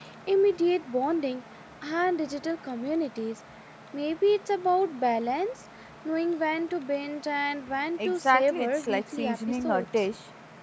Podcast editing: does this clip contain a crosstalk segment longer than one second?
Yes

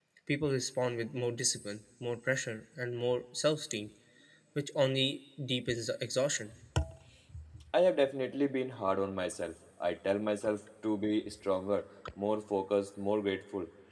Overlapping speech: No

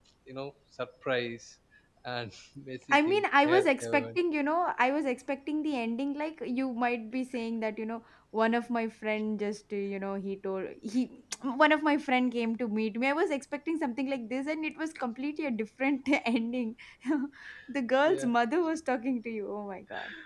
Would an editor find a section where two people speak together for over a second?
Yes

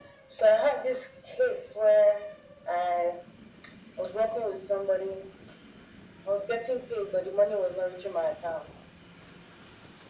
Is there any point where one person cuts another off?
No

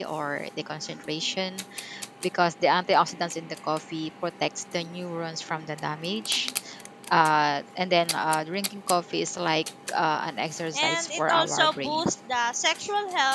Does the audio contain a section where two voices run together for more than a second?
Yes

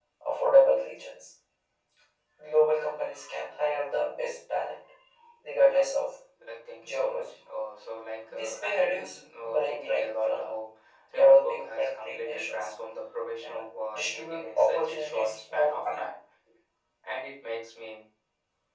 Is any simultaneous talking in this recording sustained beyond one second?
Yes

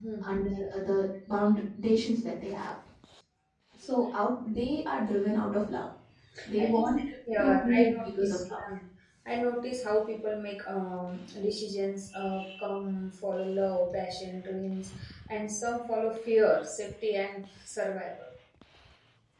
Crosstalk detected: Yes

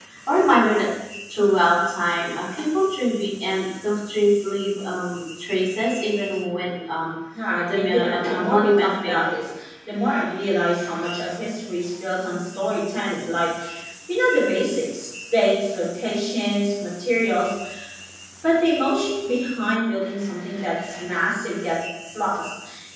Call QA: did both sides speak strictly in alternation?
No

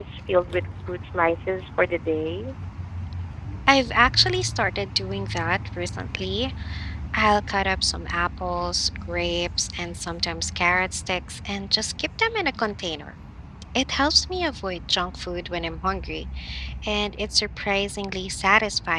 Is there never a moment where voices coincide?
Yes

